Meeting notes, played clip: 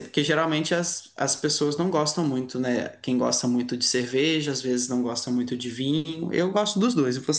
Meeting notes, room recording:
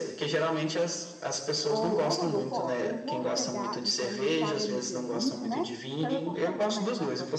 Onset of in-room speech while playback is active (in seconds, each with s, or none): 1.7 s